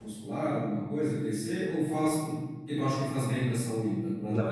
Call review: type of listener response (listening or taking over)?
taking over